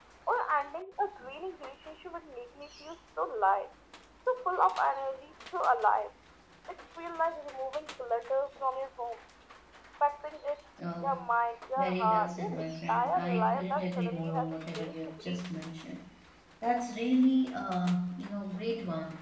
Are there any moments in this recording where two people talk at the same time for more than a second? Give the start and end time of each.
11.8-15.4

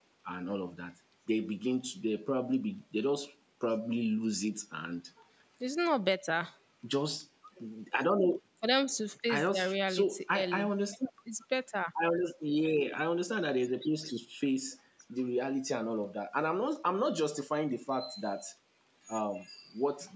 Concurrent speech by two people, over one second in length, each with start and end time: 9.3-10.7

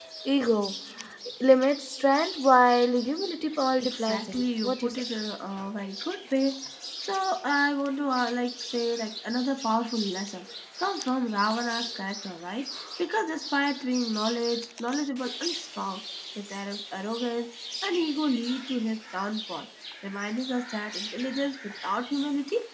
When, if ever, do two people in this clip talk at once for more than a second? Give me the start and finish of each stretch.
3.8-5.0

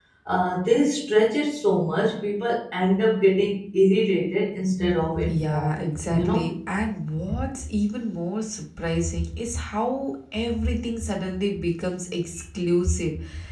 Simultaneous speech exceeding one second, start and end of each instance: 5.2-6.5

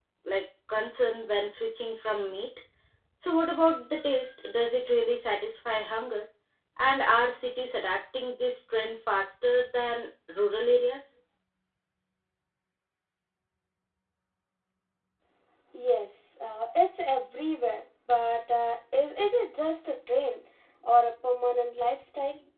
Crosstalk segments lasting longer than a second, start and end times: none

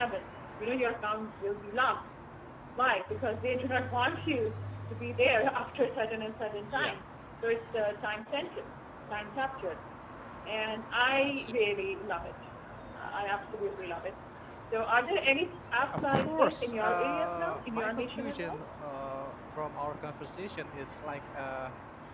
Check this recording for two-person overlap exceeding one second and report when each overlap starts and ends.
15.8-18.6

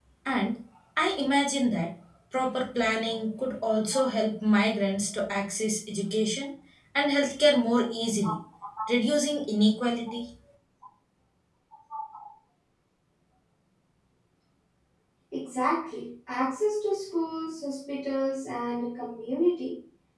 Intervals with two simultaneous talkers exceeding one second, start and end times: none

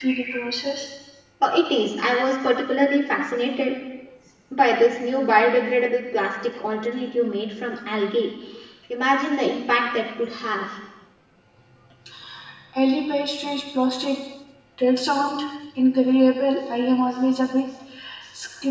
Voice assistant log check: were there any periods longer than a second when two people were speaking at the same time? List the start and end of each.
none

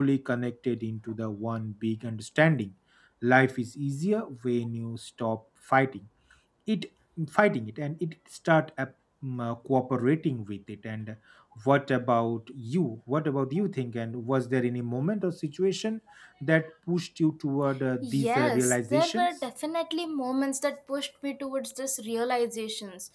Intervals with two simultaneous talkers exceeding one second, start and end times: 18.0-19.3

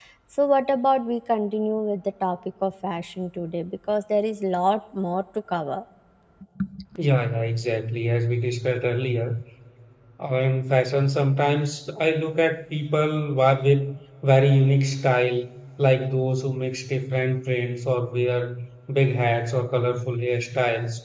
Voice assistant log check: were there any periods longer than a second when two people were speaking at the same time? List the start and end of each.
none

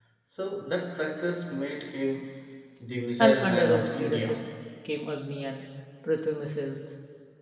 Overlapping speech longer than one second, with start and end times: 3.2-4.4

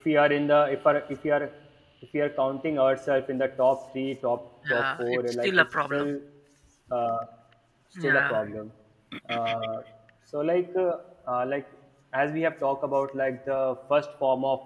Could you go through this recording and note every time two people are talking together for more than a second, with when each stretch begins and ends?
4.7-6.1

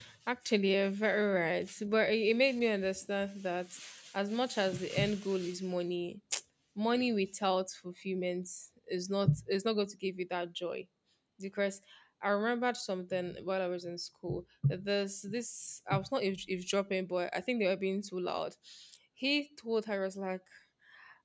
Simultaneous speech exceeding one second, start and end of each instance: none

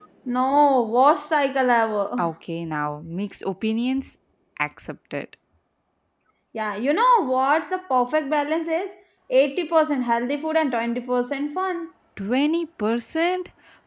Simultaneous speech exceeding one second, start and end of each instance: none

